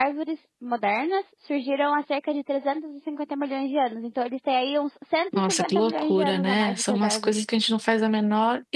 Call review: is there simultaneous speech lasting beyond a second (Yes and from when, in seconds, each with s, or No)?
Yes, from 5.3 s